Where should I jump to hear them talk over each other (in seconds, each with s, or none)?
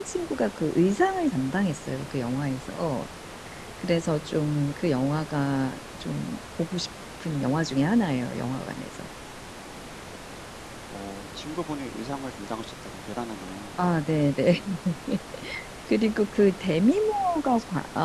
none